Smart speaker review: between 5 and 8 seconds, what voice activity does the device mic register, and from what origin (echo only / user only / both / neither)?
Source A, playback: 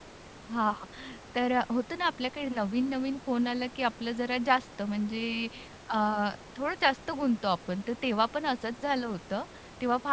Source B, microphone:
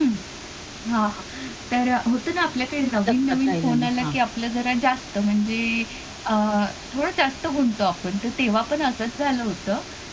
echo only